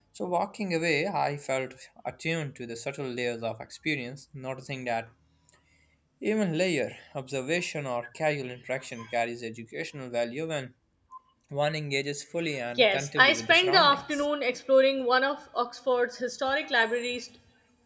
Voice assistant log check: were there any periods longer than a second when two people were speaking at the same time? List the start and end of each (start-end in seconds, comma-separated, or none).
12.8-14.2